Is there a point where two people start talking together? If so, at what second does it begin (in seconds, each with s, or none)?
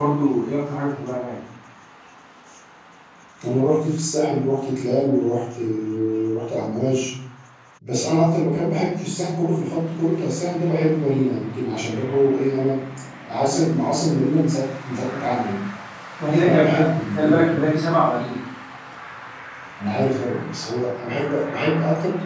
16.3 s